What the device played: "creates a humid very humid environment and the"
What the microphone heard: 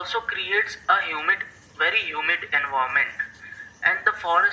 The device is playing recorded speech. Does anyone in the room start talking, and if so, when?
none

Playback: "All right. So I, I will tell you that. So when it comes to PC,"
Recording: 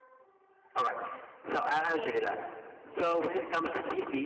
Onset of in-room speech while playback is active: 1.7 s

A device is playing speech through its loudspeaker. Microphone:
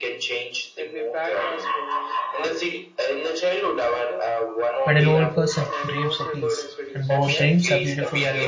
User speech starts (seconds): 4.8 s

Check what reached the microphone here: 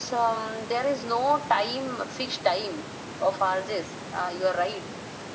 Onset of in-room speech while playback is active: none

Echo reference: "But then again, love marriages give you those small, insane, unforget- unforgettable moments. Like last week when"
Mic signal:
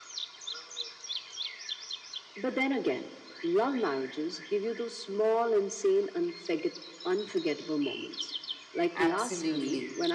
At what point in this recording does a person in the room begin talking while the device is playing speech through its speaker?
8.9 s

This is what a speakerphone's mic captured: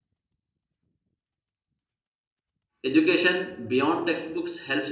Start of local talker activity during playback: 2.8 s

